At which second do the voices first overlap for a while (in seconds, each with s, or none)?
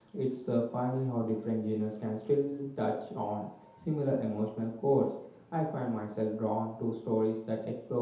none